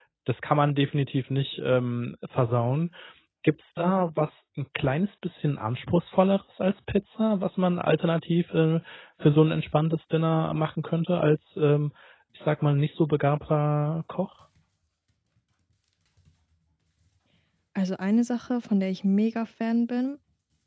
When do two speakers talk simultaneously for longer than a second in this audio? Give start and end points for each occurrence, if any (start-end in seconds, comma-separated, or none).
none